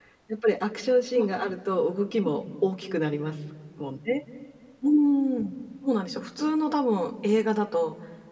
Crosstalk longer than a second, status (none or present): none